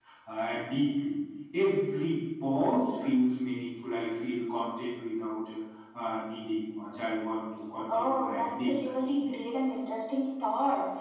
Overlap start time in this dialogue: 7.9 s

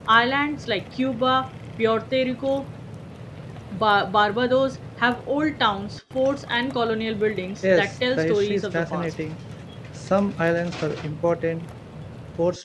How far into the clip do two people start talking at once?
7.6 s

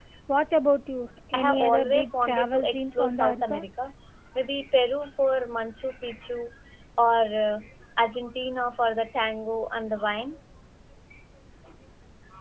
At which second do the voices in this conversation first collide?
1.3 s

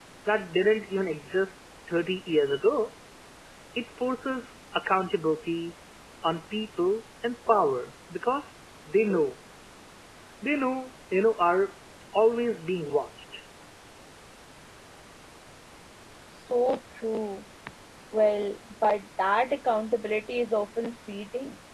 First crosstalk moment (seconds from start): none

